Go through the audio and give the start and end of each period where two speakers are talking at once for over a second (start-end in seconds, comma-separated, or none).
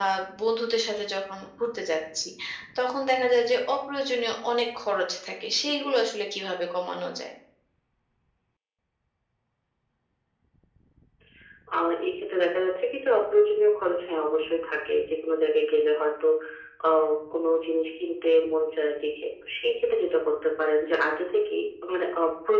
none